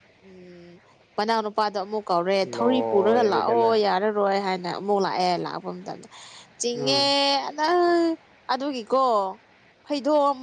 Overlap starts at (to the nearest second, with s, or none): 2 s